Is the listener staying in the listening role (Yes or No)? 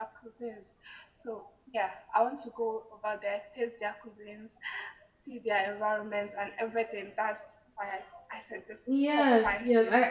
No